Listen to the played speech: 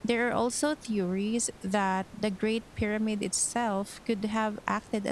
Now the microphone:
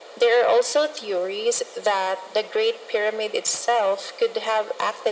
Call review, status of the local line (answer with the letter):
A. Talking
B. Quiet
B